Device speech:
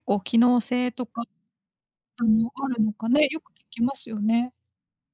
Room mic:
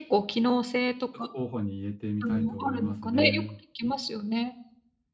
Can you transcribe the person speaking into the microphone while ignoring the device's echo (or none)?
ちょっと候補に入れてみたいと思いますね。